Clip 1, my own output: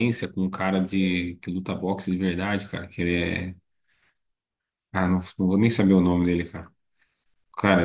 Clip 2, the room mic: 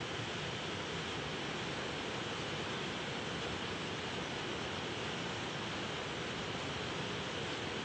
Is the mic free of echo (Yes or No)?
Yes